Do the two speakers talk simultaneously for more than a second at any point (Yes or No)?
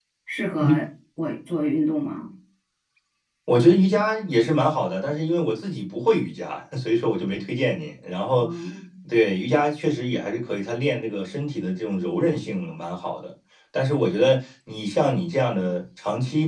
No